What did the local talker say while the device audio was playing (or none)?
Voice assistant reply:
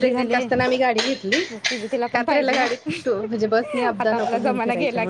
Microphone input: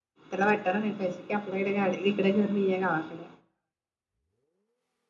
त्याला वाटत टाय नाही पाहिजे की आपल्याकडे गाडी इकड घर नाहीय गावाकडे